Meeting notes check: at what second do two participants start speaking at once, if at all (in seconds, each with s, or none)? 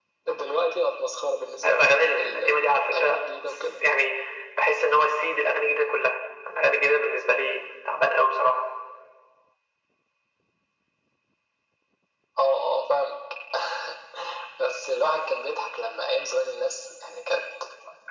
1.6 s